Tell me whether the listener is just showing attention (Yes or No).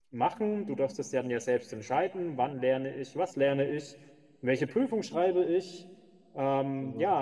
Yes